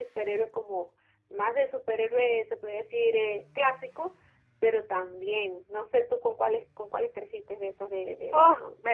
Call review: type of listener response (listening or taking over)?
taking over